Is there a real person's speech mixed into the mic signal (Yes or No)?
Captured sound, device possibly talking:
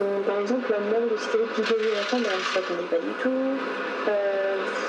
No